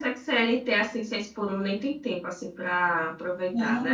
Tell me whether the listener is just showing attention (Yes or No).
No